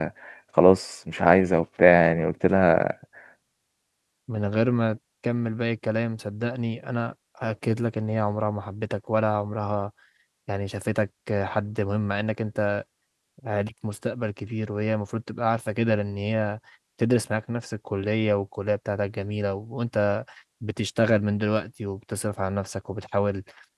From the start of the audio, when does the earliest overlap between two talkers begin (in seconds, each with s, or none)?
none